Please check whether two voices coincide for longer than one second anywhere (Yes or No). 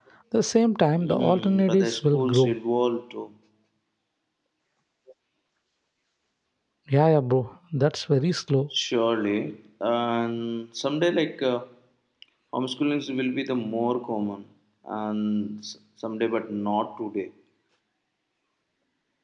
Yes